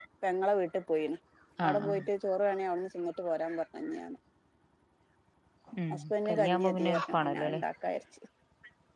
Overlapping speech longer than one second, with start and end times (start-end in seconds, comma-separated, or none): 5.9-7.6